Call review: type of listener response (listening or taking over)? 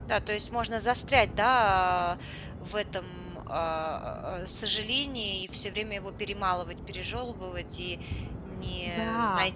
listening